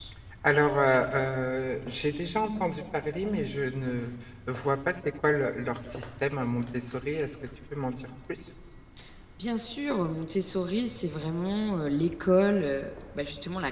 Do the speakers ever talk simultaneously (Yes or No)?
No